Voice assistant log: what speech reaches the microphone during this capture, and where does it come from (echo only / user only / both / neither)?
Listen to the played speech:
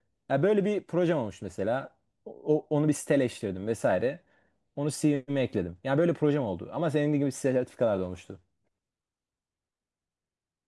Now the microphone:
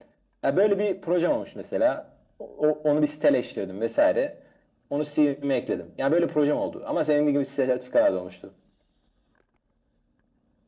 echo only